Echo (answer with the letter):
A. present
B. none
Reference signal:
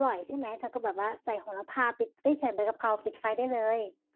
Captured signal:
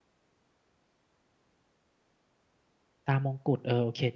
B